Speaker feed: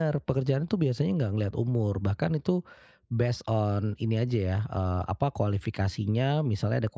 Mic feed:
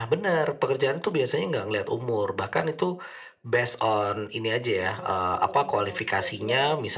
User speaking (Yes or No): Yes